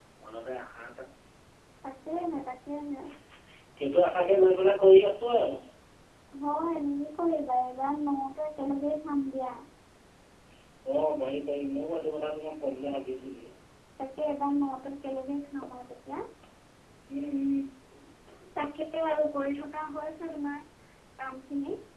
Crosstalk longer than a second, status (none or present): none